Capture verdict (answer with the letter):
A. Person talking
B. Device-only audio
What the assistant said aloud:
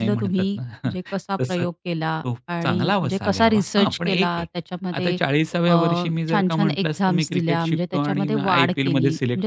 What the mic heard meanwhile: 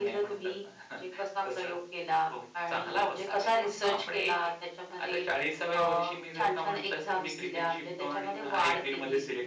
B